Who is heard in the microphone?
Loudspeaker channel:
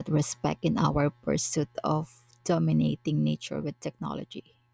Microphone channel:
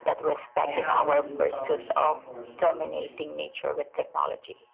both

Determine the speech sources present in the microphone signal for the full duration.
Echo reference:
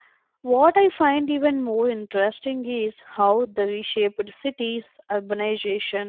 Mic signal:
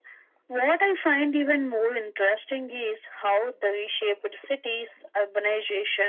echo only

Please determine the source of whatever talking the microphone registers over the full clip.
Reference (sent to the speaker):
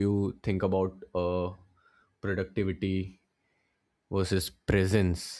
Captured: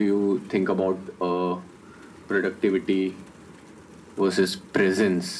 echo only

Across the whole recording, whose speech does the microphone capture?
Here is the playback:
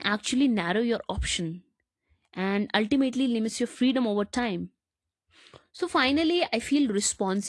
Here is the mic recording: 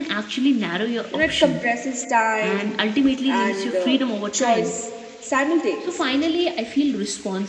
both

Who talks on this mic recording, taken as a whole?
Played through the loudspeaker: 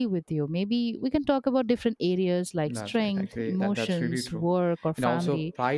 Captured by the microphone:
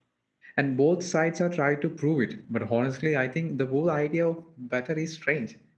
user only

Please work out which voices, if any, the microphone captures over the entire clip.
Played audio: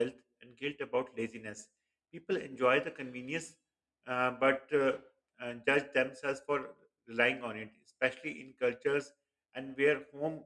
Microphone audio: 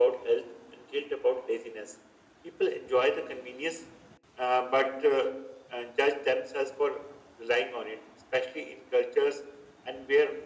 echo only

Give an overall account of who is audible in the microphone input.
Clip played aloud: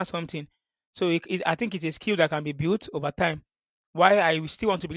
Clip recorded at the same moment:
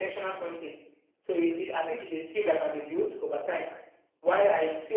echo only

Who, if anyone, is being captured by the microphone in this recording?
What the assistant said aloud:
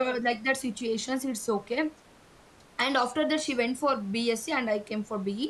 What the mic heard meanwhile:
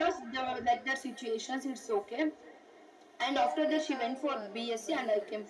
both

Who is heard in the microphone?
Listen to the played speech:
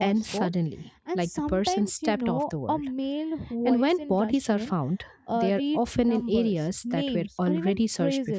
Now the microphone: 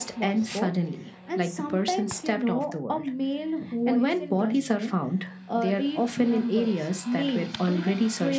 echo only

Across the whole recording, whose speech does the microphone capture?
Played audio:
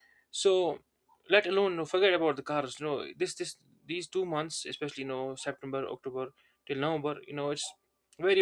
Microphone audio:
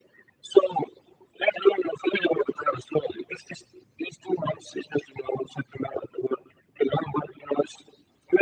echo only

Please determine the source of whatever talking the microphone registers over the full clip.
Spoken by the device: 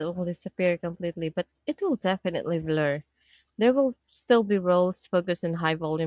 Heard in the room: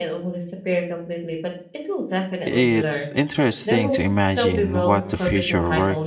both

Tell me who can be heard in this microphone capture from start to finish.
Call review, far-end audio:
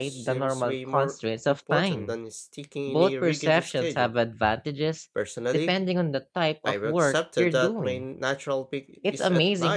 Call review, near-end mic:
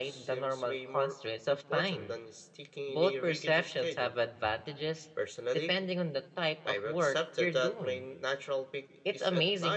echo only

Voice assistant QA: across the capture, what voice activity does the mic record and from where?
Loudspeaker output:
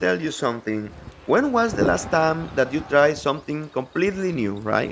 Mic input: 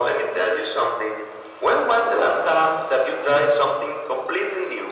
echo only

